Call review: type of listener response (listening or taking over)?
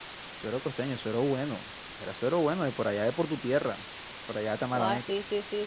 taking over